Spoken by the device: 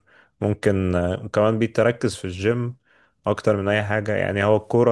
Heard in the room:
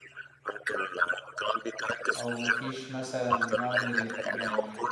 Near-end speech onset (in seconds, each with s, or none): 2.1 s